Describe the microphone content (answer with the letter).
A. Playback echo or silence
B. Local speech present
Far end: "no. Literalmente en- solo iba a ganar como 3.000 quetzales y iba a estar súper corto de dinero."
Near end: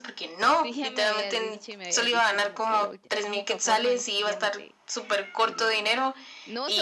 B